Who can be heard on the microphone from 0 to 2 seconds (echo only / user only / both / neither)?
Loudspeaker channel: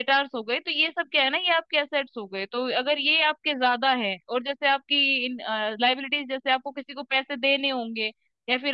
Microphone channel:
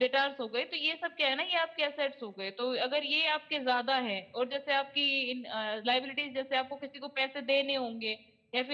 echo only